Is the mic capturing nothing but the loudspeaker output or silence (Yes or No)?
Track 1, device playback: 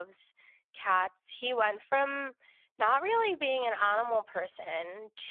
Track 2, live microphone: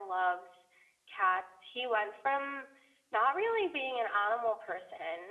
Yes